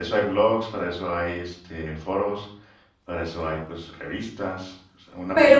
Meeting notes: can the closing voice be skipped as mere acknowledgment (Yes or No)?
Yes